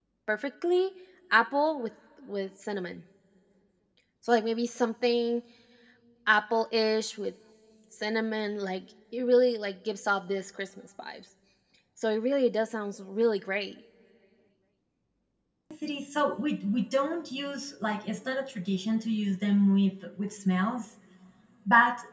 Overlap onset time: none

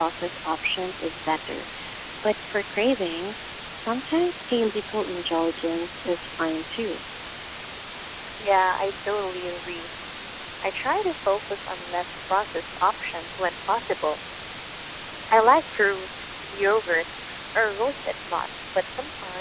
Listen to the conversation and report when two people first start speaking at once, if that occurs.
none

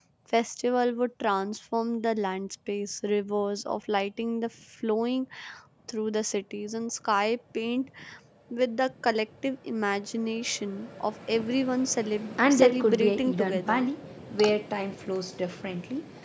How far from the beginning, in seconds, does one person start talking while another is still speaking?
12.4 s

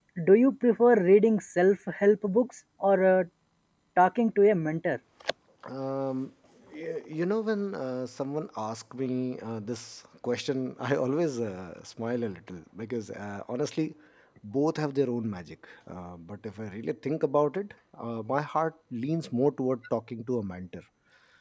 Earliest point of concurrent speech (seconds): none

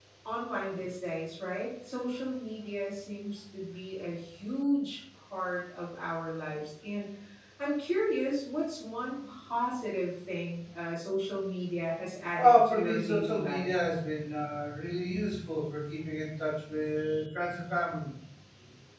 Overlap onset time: 12.4 s

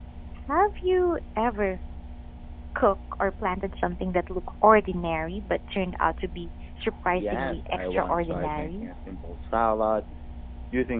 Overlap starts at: 7.1 s

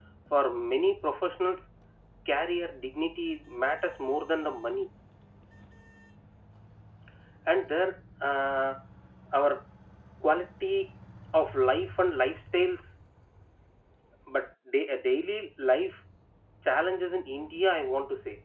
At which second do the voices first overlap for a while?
none

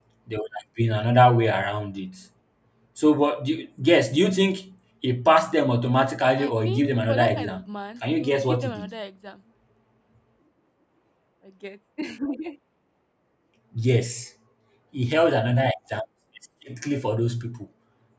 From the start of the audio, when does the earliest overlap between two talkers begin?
6.4 s

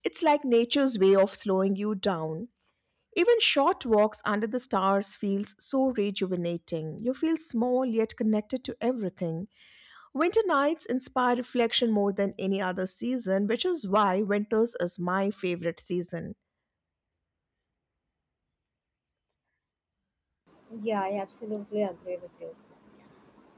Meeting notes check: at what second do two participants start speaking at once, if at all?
none

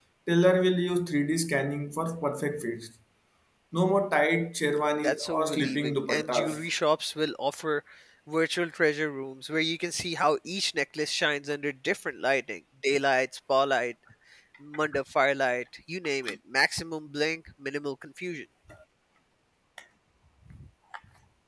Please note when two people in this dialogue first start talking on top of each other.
5.0 s

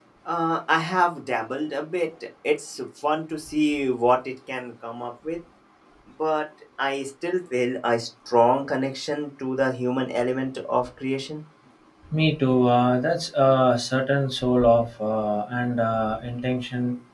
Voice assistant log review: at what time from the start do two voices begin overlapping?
none

